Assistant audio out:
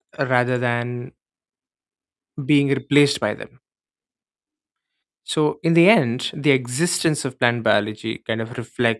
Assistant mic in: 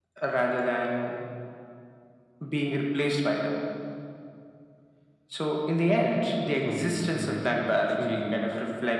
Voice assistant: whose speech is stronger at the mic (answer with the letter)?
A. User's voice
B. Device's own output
B